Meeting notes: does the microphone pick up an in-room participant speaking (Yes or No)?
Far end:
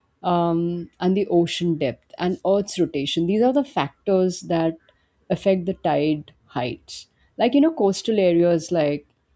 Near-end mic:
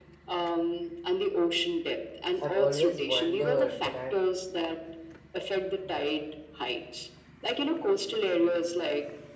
Yes